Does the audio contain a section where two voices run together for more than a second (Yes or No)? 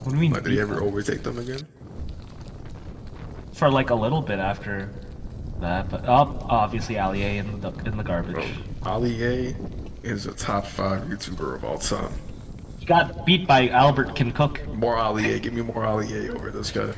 No